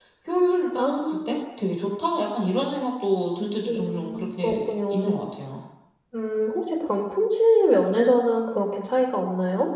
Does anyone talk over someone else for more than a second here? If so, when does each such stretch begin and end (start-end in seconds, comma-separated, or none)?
3.7-5.2